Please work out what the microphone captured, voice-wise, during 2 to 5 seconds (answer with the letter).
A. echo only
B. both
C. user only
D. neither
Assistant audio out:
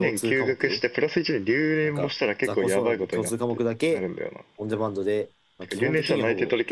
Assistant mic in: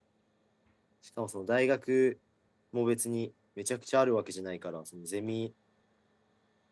C